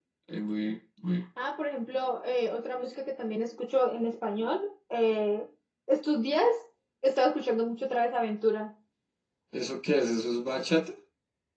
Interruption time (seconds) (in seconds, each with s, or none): none